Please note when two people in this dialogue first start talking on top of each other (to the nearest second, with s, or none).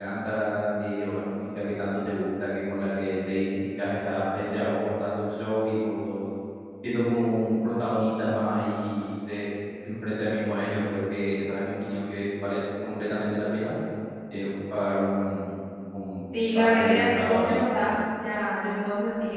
16 s